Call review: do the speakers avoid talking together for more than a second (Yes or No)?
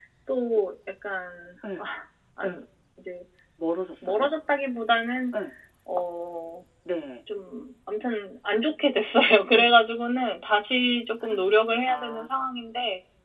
Yes